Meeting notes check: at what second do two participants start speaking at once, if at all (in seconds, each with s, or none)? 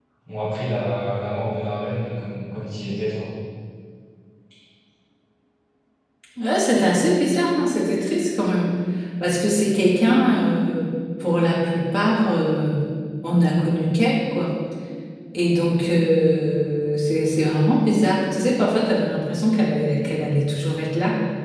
none